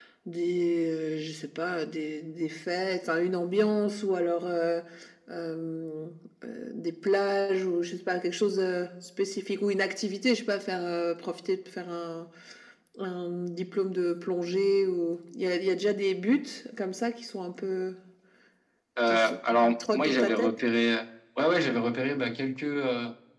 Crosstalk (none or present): present